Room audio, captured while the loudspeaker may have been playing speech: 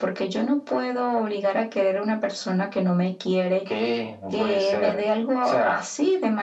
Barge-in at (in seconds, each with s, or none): none